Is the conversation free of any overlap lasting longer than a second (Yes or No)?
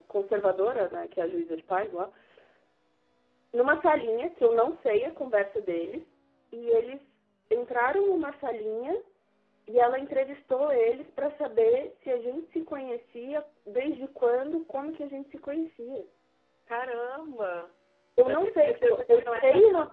No